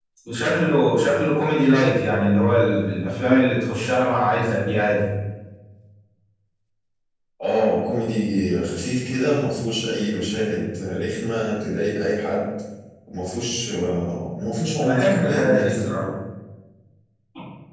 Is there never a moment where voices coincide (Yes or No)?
No